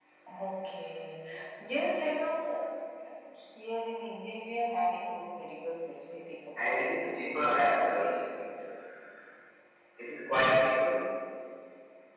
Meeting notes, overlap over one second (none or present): present